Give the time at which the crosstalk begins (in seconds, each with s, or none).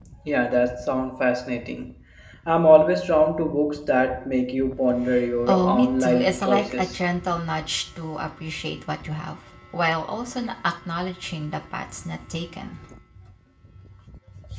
5.5 s